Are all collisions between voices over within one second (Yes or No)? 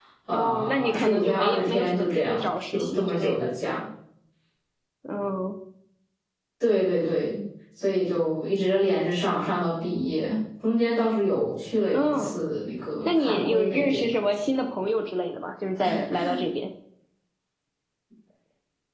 No